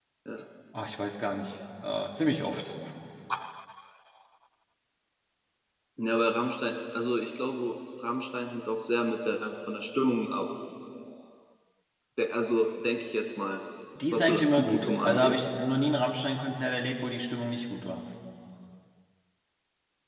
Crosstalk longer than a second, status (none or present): present